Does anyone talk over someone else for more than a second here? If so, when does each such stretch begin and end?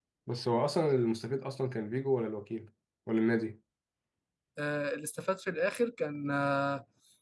none

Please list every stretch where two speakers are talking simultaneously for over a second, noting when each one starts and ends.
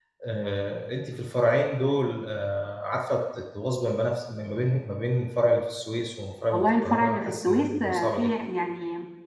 6.5-8.3

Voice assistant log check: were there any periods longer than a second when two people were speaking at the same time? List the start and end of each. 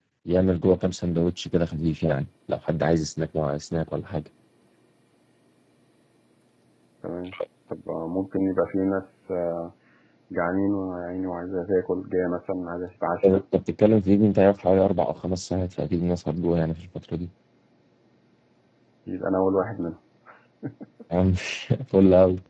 none

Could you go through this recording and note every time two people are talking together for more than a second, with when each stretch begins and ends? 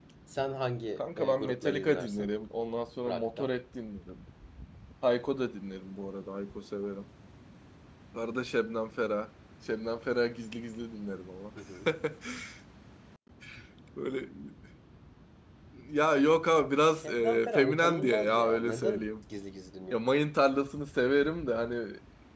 1.0-2.3, 17.0-19.1

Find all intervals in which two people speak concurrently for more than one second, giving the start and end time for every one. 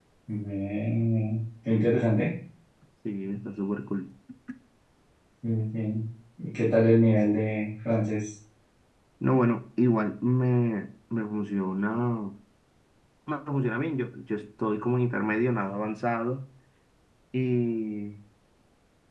none

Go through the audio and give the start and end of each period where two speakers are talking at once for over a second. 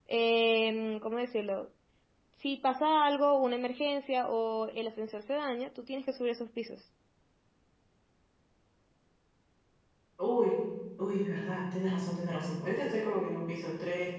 none

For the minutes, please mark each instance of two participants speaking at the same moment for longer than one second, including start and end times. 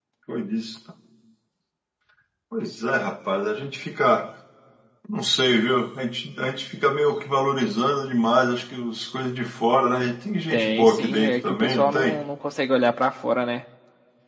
10.5-12.2

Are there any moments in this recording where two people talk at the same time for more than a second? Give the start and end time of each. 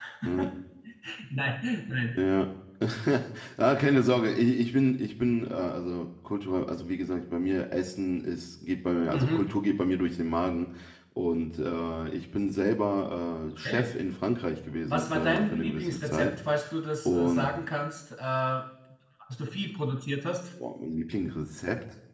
14.9-16.3

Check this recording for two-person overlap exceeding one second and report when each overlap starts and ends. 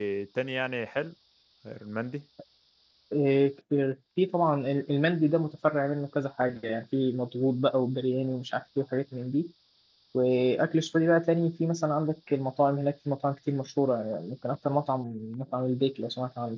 none

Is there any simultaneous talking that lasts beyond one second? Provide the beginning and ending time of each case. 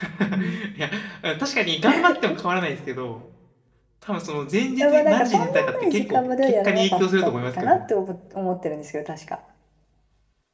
4.8-7.8

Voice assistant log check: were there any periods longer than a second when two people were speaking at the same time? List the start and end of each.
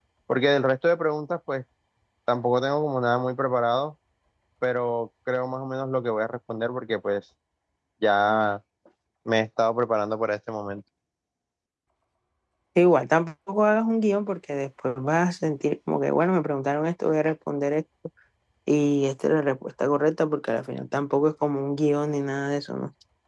none

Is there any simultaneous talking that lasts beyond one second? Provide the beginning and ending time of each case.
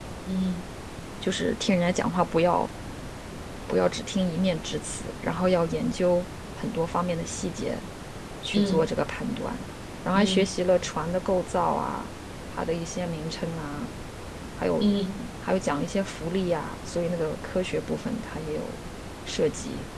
none

